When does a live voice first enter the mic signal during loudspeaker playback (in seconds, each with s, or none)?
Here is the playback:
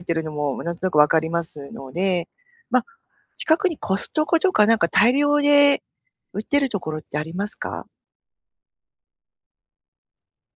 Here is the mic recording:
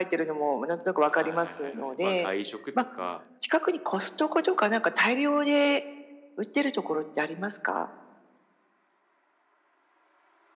1.1 s